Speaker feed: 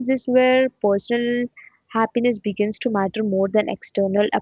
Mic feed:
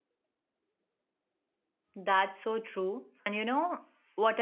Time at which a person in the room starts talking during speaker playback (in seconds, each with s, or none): 1.9 s